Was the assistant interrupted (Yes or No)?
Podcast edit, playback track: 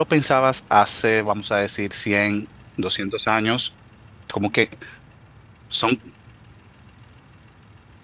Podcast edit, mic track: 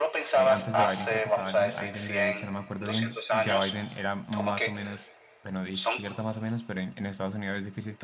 Yes